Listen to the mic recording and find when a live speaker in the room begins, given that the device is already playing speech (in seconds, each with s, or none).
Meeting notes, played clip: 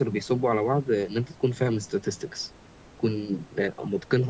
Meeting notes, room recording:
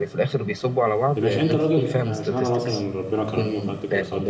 1.1 s